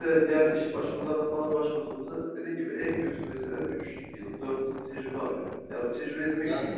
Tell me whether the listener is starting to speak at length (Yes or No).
No